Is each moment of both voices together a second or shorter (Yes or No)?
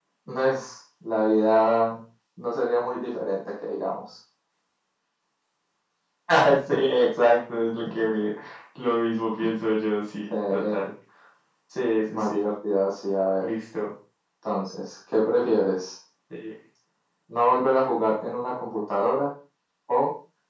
Yes